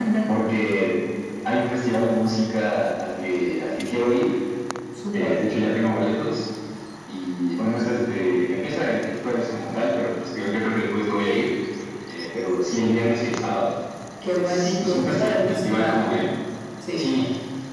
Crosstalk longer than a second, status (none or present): present